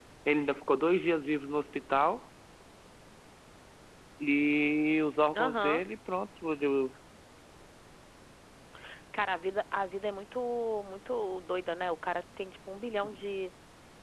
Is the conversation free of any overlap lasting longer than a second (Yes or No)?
Yes